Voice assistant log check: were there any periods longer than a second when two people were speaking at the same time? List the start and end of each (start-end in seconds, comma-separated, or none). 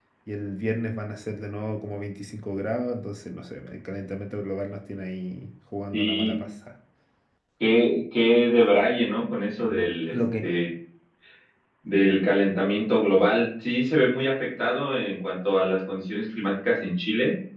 none